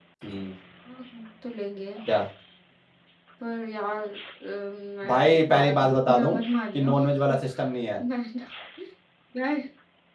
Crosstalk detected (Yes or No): Yes